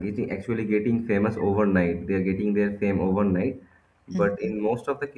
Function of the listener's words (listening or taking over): listening